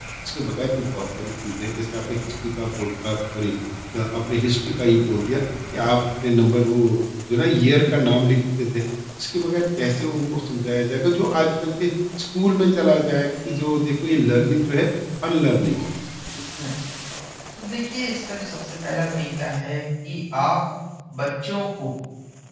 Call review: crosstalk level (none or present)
none